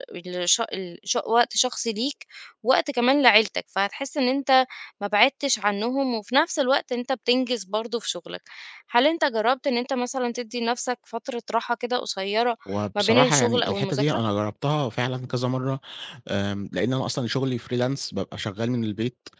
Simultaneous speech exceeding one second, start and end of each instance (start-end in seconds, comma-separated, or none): 13.0-14.2